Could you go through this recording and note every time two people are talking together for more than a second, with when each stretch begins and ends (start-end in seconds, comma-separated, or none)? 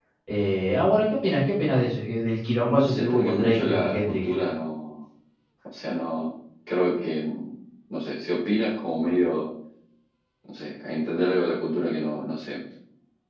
2.6-4.3